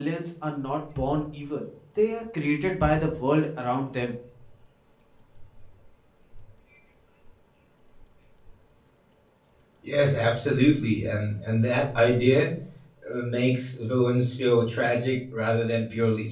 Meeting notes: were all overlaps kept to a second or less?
Yes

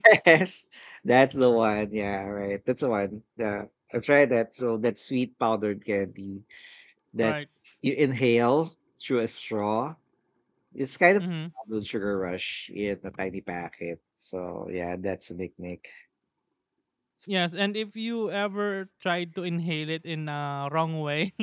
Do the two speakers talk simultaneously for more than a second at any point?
No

